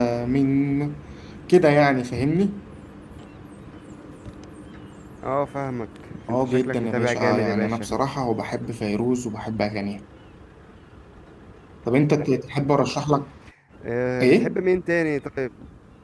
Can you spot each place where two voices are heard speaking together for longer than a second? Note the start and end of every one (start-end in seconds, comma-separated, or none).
6.3-7.7